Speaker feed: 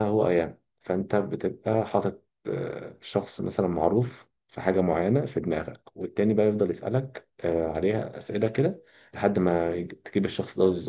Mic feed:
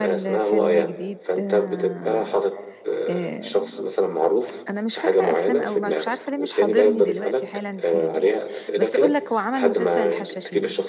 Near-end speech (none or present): present